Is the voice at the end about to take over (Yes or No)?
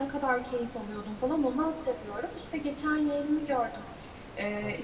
No